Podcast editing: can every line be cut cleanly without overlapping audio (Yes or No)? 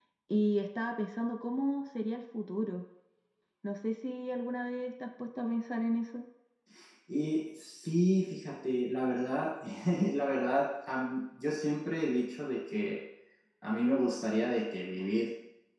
Yes